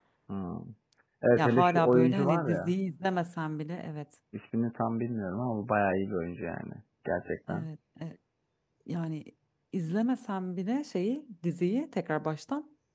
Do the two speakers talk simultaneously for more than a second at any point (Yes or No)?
Yes